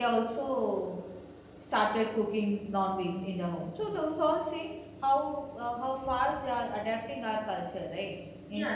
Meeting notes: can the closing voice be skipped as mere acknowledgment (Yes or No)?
No